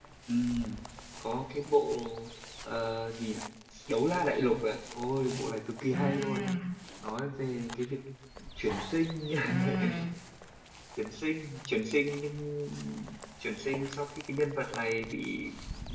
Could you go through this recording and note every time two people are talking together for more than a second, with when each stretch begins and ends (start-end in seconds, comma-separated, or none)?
none